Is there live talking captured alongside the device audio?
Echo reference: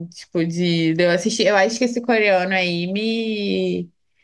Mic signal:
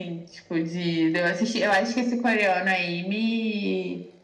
No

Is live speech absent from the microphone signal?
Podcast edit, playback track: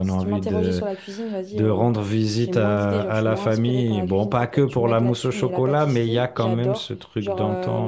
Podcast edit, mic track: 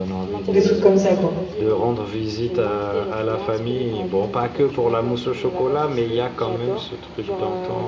No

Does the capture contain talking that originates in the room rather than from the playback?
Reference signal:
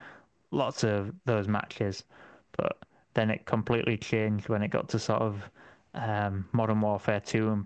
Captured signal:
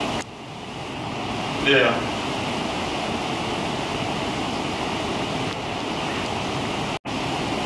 Yes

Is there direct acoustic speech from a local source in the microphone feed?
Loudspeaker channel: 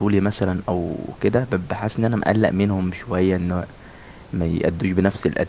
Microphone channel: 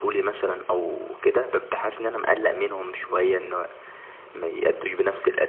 No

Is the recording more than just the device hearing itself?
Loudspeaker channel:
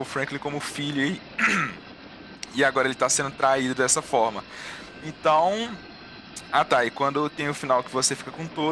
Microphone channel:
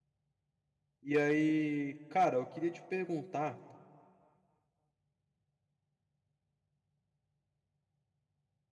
Yes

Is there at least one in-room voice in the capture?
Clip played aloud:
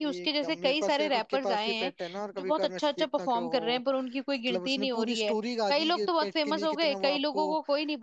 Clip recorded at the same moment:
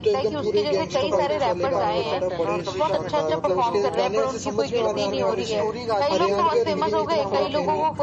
Yes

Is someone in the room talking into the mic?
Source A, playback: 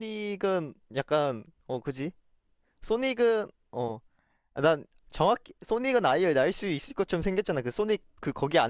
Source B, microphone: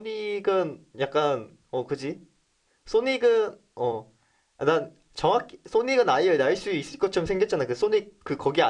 No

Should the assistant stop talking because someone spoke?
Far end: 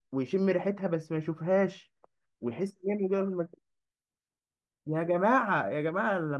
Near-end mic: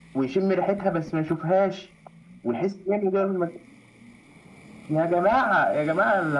No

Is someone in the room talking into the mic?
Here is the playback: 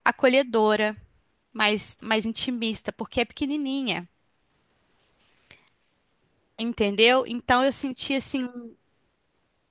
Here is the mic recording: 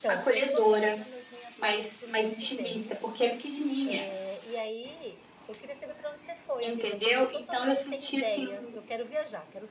Yes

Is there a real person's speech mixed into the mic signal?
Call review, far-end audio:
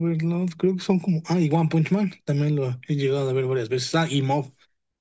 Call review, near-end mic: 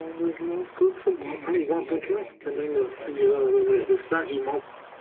Yes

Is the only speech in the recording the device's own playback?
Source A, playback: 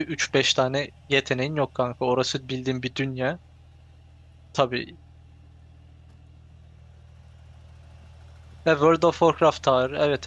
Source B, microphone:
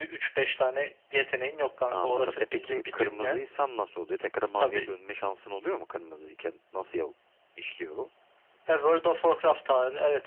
No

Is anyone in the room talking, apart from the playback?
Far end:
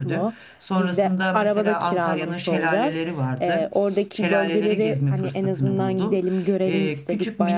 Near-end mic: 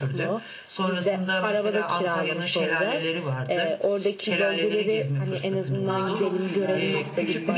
Yes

